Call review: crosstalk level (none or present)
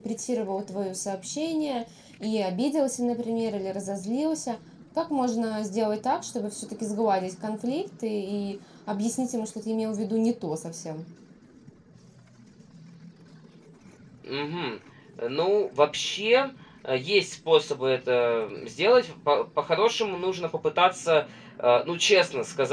none